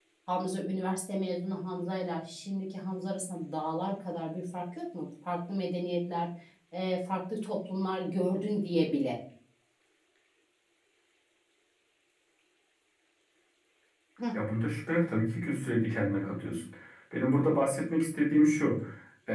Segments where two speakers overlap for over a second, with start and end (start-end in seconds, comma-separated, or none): none